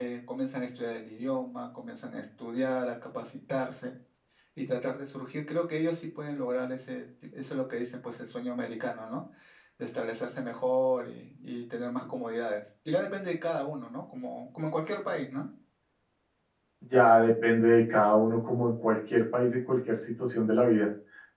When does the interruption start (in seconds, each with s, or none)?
none